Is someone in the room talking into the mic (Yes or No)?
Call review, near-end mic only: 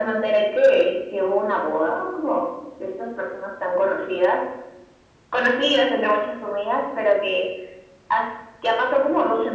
No